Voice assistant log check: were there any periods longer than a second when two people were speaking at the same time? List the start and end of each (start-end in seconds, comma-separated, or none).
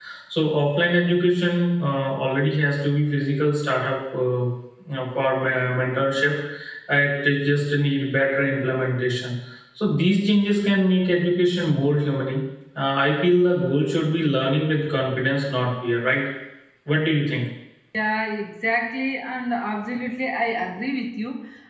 none